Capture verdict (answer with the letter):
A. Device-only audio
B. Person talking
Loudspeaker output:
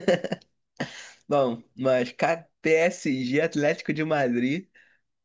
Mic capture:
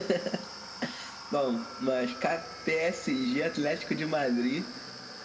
A